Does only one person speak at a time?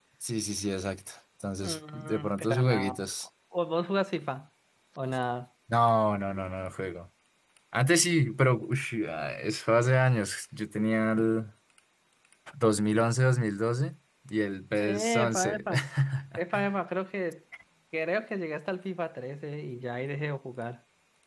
No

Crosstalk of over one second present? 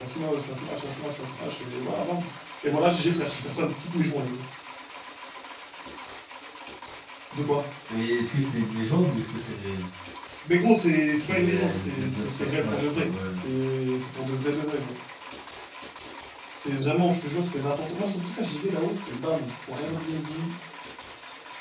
Yes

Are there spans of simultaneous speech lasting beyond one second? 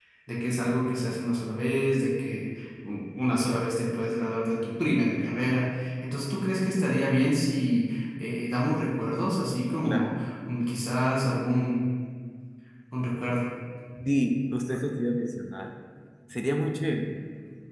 No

